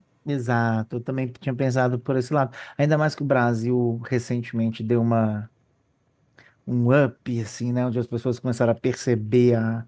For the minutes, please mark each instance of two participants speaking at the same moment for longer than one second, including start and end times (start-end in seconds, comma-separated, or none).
none